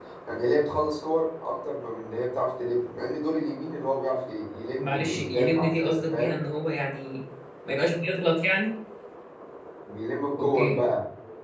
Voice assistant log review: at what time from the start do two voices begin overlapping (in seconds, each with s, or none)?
4.8 s